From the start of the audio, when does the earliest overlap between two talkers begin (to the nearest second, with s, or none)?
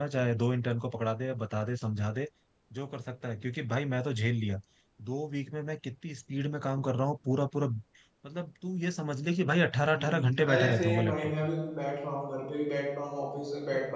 10 s